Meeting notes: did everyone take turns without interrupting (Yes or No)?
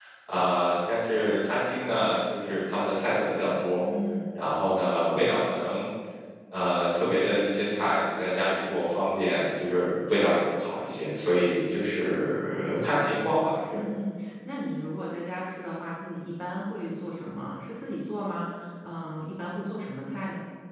Yes